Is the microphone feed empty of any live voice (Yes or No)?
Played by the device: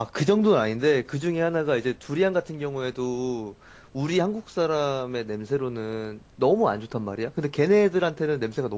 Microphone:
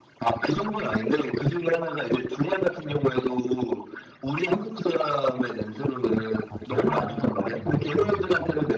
No